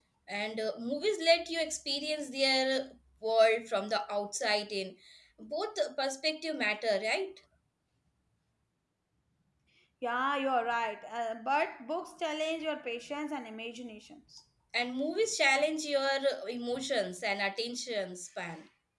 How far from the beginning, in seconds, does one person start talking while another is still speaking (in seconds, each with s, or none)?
none